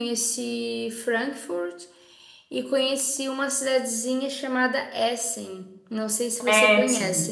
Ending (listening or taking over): taking over